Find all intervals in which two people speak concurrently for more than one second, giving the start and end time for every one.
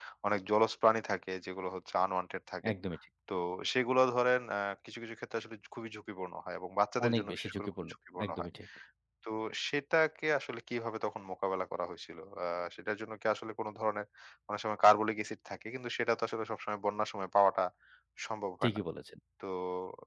7.1-8.5

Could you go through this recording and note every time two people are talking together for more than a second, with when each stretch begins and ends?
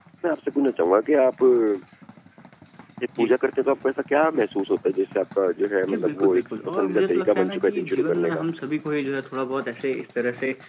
5.9-8.4

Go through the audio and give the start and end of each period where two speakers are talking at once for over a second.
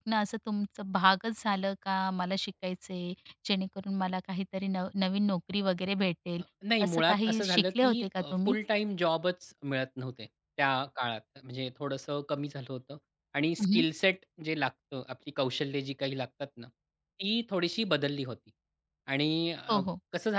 6.8-8.0

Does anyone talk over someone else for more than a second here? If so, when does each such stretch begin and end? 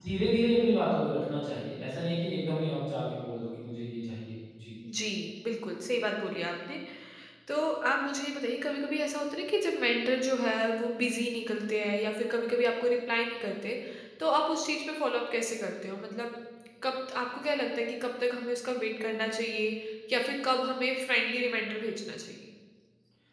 none

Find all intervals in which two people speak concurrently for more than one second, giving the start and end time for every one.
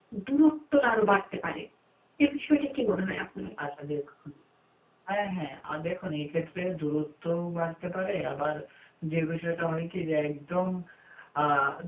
none

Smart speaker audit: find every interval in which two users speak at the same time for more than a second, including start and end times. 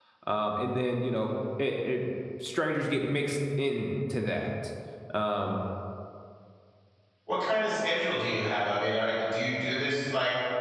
none

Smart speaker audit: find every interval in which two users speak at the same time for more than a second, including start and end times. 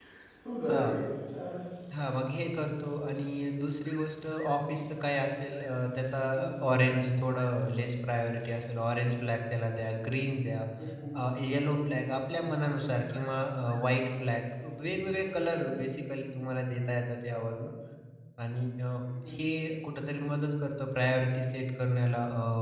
none

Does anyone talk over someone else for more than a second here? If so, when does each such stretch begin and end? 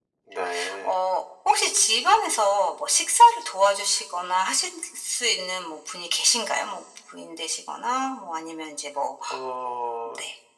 none

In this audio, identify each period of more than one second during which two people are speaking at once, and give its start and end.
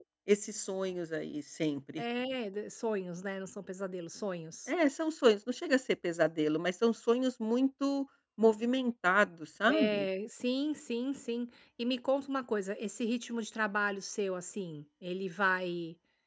none

